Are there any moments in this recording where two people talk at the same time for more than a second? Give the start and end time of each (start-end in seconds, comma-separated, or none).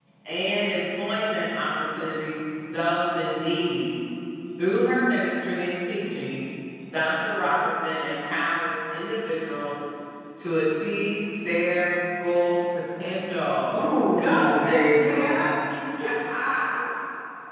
13.8-15.3